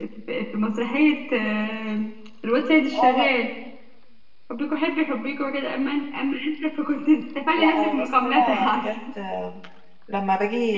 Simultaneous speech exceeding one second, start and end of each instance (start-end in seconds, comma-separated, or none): 7.6-8.9